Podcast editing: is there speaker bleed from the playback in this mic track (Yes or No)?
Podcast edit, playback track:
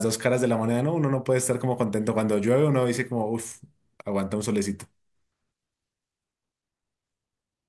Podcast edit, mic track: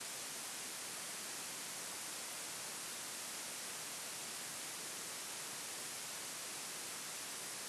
No